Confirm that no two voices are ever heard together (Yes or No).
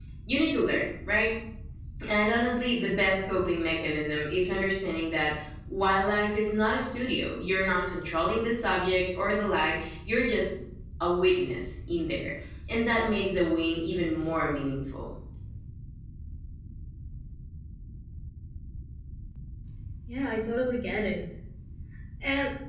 Yes